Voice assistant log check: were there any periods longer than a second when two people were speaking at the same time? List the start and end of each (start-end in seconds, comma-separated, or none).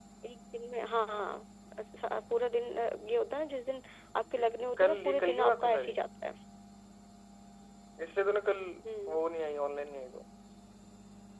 4.8-6.0